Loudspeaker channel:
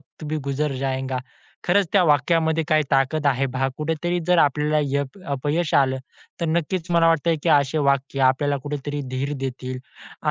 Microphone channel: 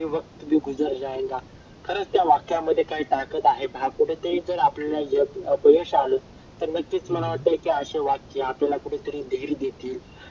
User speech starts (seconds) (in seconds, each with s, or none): 7.1 s